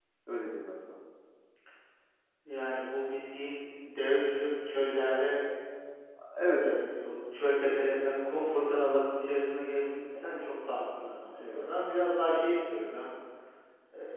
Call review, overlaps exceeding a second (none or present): none